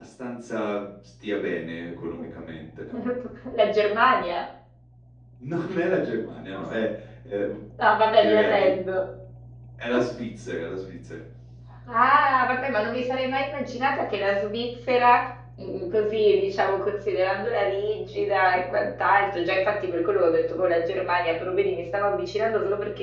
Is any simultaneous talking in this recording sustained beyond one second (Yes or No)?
No